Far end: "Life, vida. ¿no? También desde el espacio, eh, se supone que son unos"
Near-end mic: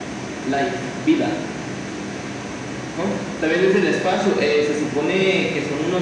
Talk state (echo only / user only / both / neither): echo only